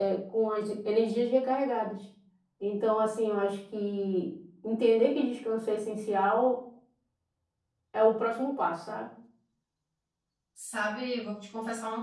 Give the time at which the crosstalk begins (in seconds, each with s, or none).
none